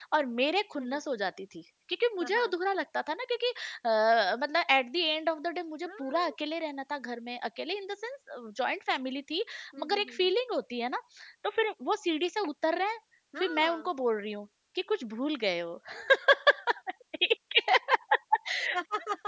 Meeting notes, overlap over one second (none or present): none